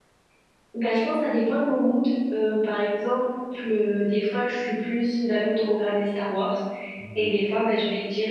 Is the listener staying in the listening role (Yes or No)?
Yes